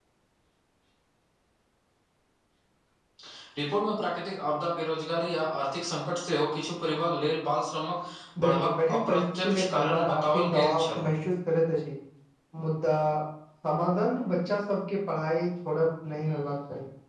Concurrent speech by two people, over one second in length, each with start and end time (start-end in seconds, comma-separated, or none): 8.4-11.1